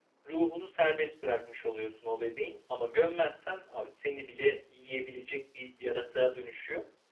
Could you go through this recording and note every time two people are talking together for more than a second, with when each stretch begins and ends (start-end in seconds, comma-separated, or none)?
none